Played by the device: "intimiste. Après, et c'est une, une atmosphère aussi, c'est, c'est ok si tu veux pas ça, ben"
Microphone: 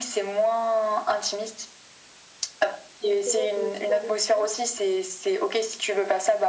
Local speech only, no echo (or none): justement pour le soir et tout,